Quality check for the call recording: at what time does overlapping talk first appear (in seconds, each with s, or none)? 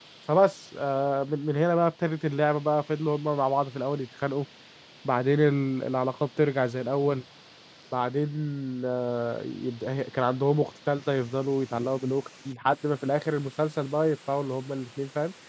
none